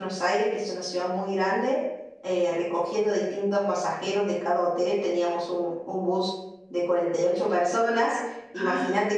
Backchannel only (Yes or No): Yes